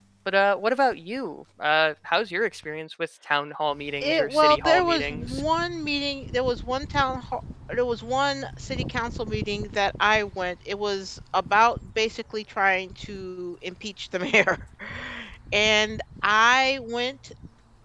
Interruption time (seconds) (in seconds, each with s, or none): 4.0 s